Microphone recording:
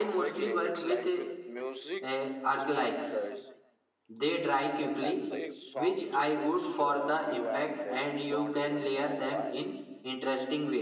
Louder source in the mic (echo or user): user